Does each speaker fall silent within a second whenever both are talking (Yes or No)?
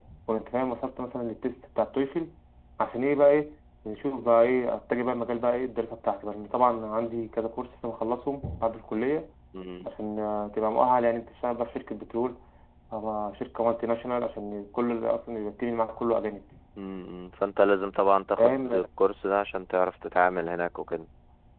Yes